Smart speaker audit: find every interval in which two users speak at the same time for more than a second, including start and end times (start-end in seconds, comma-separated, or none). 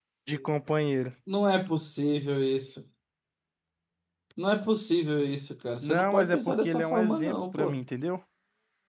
5.8-7.8